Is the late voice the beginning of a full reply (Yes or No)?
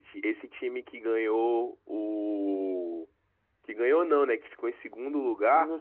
No